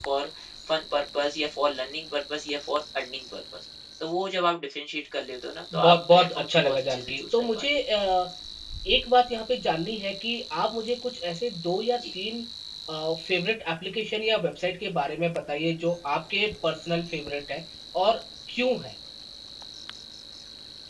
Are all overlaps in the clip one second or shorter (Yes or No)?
No